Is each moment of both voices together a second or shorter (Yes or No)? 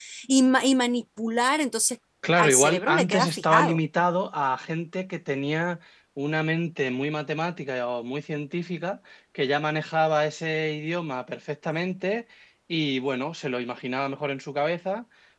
No